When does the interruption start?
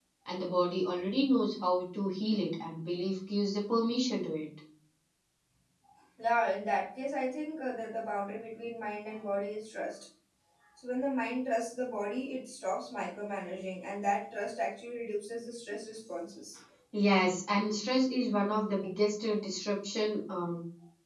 none

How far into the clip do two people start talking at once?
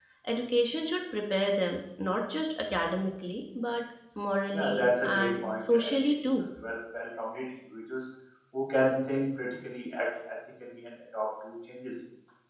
5 s

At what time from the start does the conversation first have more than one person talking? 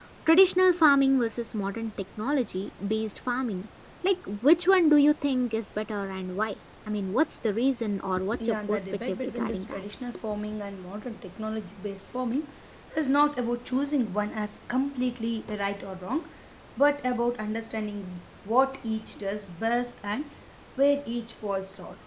8 s

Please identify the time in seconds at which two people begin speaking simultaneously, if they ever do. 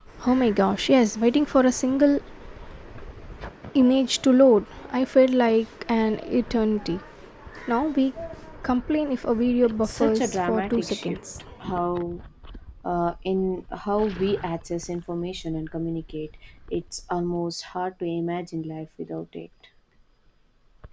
10 s

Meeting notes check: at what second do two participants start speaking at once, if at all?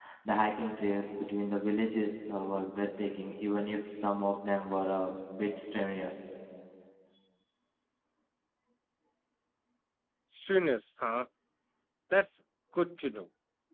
none

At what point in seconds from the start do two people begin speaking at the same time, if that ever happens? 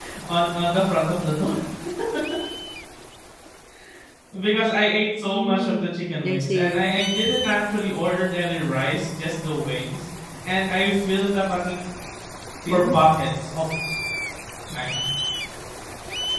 5 s

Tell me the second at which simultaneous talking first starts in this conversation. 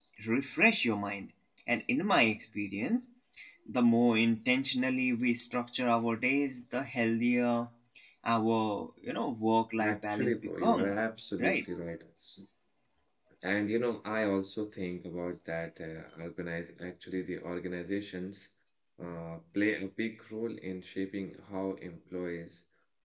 10 s

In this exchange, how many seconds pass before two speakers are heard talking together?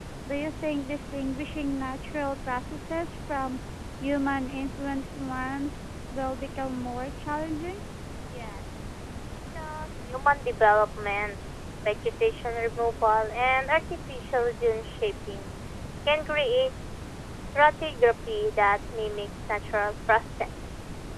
none

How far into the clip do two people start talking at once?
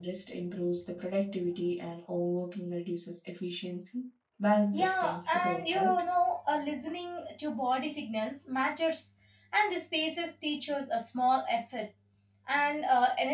5 s

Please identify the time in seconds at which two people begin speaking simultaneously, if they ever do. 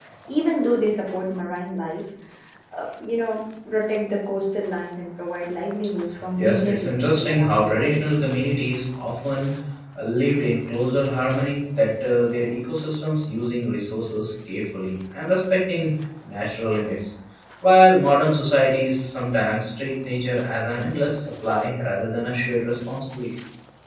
6 s

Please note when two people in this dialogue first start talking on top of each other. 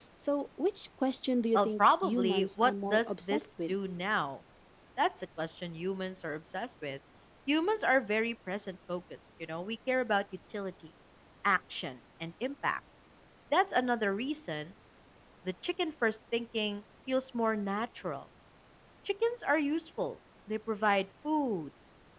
2 s

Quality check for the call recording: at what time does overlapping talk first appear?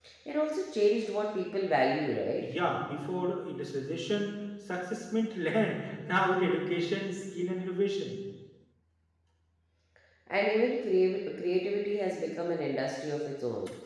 none

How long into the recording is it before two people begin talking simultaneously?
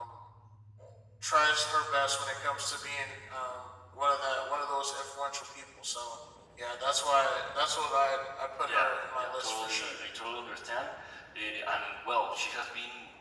9 s

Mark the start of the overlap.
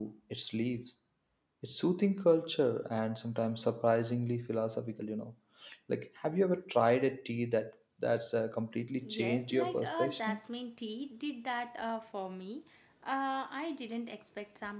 9 s

